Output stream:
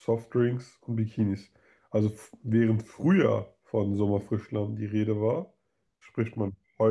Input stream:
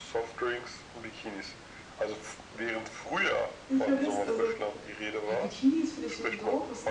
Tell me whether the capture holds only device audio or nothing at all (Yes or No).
No